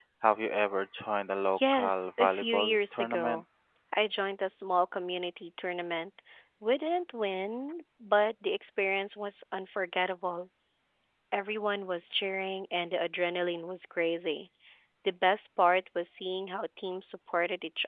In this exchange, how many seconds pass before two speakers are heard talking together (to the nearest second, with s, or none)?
2 s